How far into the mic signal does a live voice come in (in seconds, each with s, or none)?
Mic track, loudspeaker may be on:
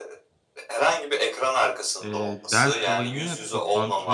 2.0 s